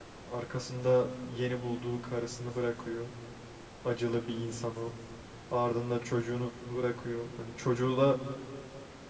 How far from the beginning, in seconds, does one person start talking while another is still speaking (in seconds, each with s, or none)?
none